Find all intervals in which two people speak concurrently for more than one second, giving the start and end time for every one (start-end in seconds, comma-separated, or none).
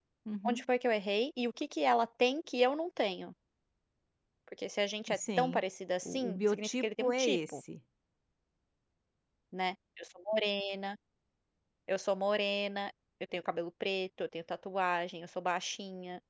6.0-7.6